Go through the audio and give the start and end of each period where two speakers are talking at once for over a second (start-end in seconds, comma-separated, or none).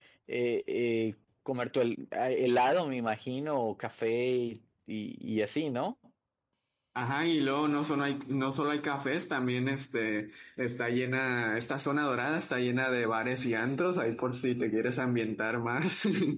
none